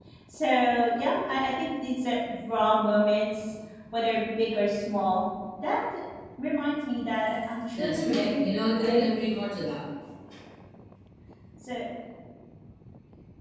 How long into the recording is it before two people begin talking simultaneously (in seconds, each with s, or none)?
7.8 s